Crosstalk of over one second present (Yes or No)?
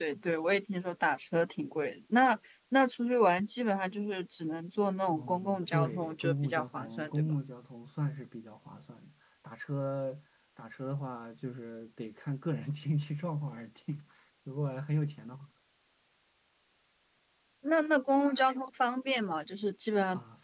Yes